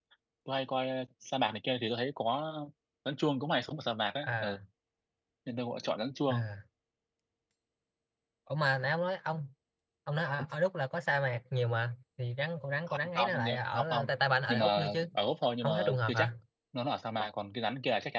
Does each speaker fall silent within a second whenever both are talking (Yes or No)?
No